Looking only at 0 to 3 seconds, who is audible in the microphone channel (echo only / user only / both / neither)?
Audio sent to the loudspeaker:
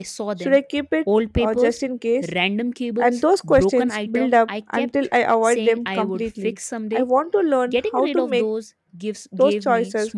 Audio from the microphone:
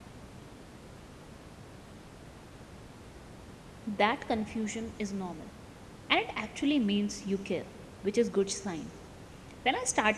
neither